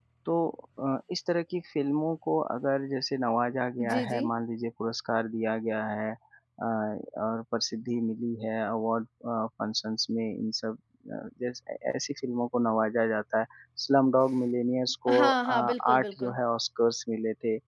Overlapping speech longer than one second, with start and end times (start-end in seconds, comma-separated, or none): 15.1-16.4